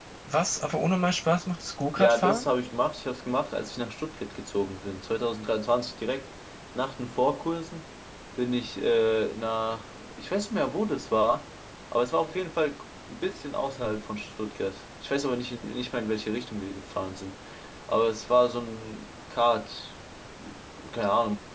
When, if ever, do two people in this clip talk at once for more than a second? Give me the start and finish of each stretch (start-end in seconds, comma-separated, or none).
none